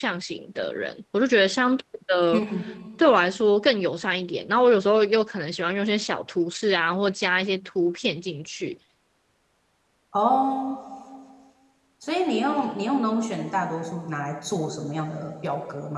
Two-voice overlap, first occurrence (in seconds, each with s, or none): none